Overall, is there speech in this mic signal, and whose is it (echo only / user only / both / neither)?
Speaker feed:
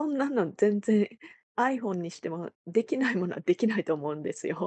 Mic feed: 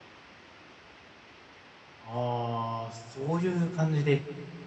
user only